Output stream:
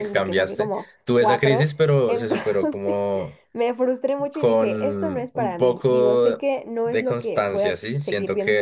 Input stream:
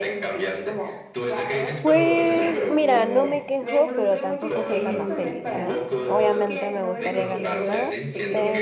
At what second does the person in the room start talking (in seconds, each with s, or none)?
1.8 s